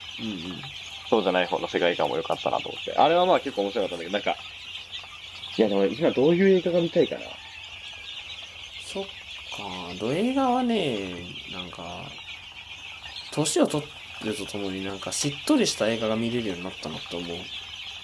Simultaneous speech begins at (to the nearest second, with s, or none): none